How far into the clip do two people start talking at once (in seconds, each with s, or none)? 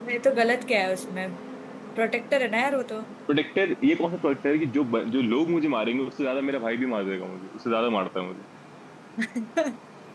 none